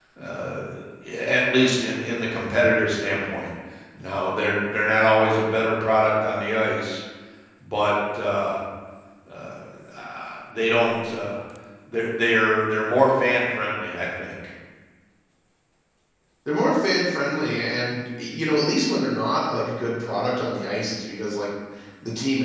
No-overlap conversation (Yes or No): Yes